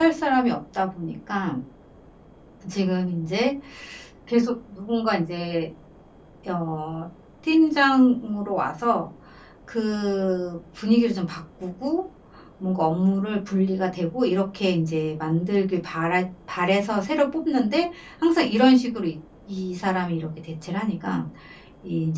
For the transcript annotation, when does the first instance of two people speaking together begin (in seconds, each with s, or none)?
none